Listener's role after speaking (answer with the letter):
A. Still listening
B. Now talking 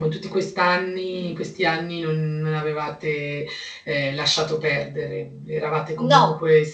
A